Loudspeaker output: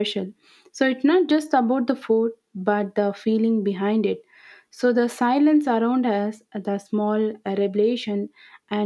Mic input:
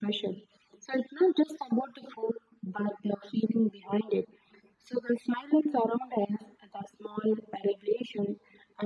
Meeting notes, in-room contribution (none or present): none